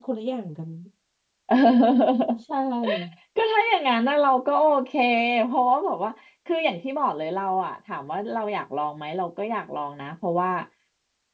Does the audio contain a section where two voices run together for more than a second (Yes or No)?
No